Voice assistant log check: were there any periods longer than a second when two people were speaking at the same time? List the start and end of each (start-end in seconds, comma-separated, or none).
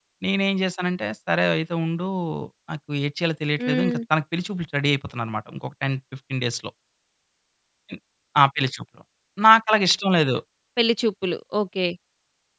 none